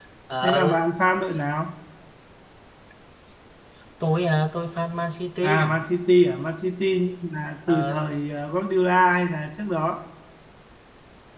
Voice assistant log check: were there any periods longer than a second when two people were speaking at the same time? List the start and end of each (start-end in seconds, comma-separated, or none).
none